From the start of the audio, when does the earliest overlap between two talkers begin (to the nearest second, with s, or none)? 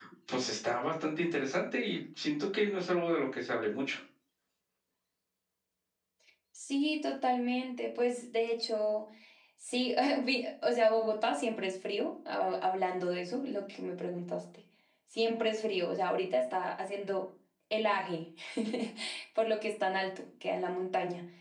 none